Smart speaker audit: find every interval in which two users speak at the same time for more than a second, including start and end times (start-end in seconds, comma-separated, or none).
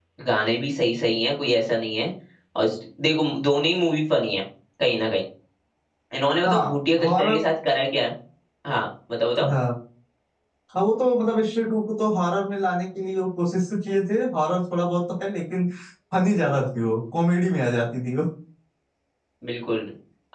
none